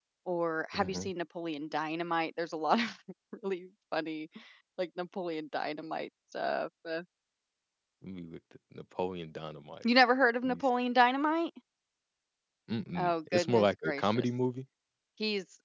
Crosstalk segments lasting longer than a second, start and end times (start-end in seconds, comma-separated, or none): 12.9-14.3